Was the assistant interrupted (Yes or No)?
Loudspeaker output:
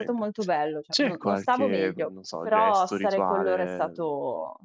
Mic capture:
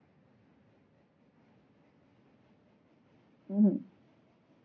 Yes